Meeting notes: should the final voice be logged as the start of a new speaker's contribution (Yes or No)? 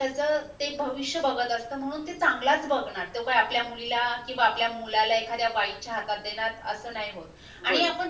No